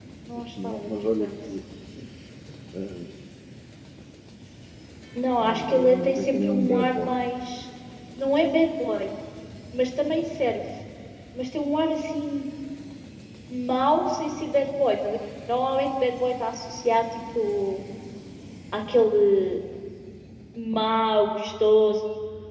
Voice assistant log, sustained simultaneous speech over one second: present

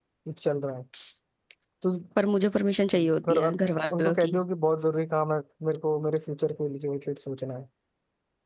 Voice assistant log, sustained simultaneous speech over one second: none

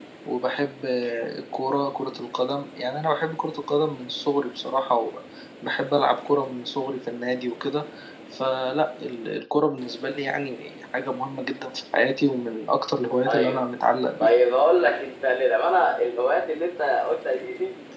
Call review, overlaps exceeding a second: none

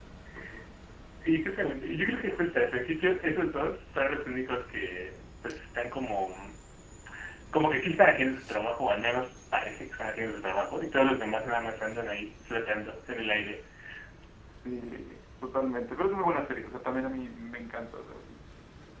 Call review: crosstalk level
none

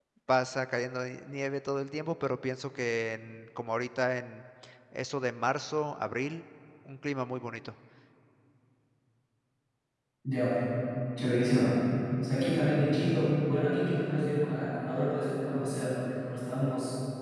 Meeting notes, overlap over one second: none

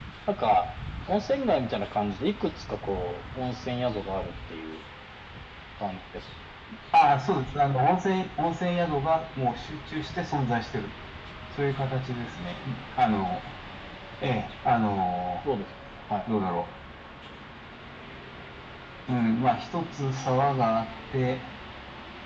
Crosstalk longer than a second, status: none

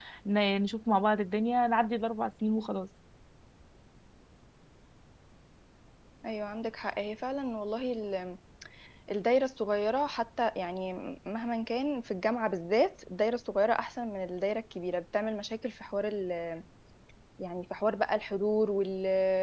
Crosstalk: none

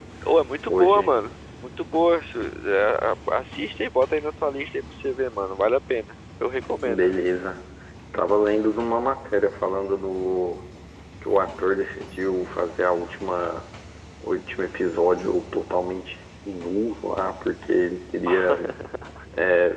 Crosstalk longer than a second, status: none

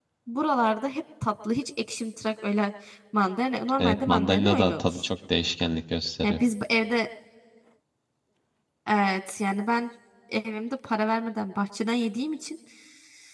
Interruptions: present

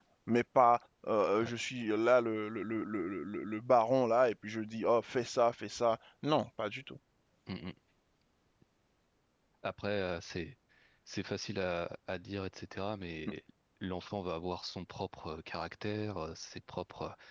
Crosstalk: none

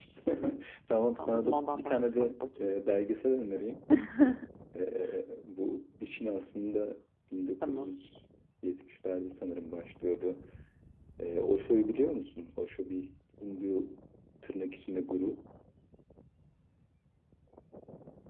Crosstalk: present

